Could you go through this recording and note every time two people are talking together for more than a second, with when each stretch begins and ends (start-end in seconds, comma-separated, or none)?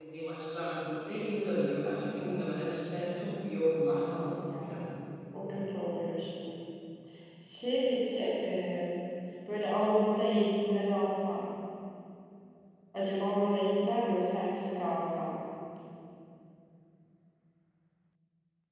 2.9-4.9